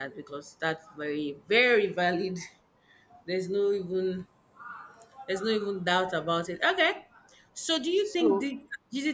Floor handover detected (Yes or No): No